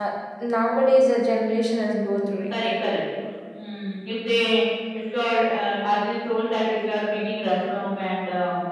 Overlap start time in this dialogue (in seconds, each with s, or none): none